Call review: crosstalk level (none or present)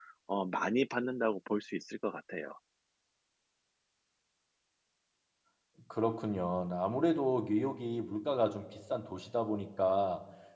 none